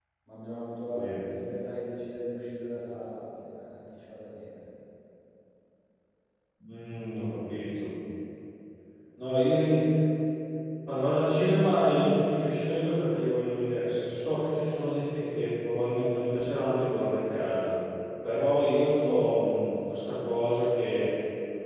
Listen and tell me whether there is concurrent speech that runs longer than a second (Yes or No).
No